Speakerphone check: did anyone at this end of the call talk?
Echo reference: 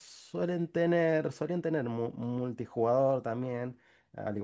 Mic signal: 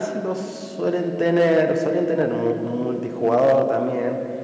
No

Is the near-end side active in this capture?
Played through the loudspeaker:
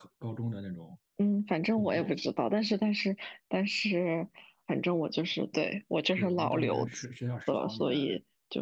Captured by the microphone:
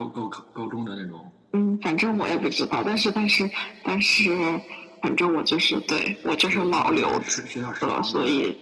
No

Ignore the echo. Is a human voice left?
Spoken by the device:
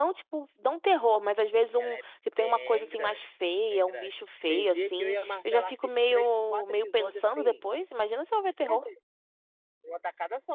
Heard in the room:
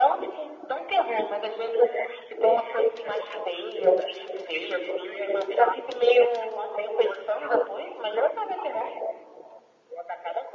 No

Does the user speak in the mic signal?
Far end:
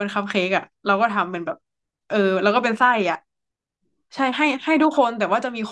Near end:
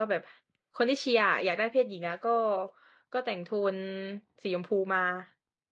Yes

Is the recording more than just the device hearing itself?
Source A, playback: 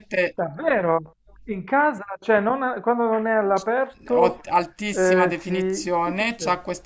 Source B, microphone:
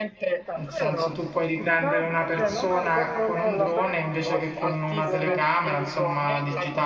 Yes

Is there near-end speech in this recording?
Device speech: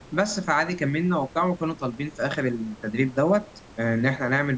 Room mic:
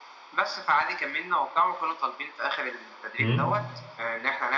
Yes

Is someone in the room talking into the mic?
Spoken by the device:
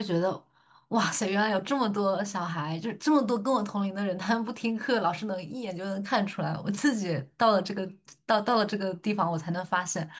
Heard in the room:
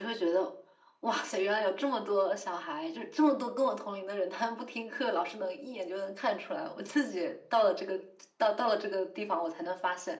No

